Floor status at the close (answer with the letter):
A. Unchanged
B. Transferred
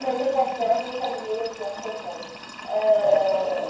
B